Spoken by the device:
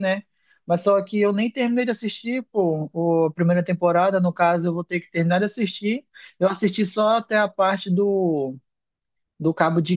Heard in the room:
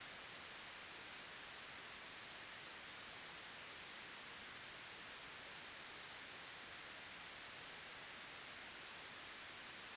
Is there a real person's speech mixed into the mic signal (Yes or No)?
No